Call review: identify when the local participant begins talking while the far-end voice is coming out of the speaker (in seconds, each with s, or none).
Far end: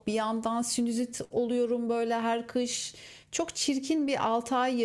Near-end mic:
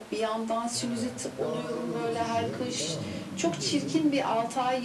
0.7 s